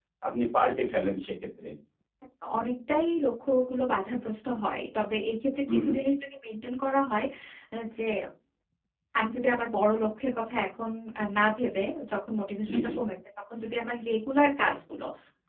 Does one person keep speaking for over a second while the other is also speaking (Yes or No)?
No